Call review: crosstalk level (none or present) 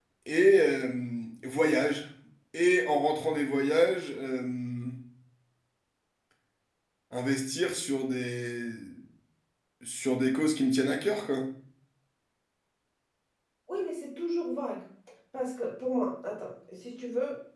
none